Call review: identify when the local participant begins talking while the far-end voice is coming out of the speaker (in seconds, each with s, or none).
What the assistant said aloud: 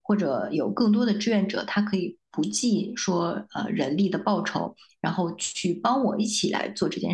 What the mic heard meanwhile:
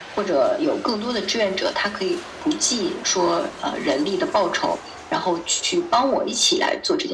none